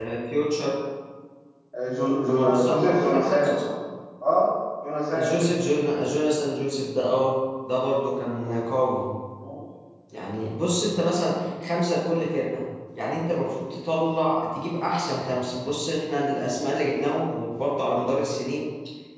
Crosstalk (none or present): present